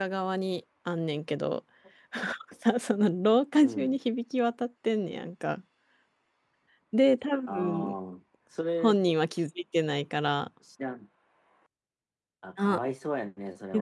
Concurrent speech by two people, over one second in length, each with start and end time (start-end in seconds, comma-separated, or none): none